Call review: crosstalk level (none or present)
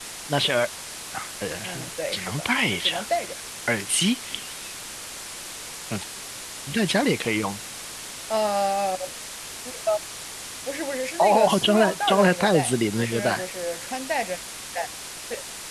present